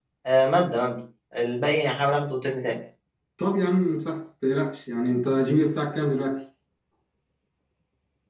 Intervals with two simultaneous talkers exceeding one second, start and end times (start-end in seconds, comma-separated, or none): none